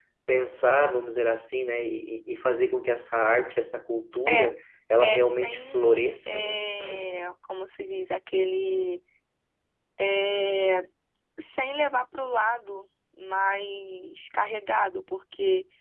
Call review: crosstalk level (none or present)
present